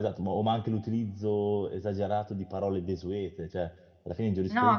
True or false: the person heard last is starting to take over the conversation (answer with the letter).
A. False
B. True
A